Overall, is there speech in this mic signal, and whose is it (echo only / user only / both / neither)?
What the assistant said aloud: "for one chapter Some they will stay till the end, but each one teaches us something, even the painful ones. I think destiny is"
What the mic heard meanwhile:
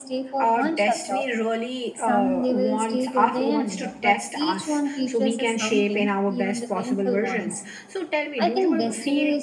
both